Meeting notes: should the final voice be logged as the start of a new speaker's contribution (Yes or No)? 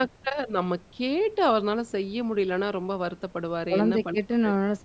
Yes